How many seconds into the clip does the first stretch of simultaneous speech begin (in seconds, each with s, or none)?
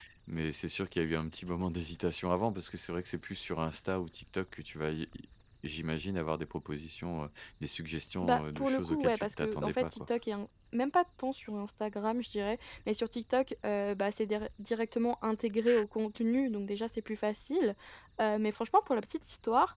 8.2 s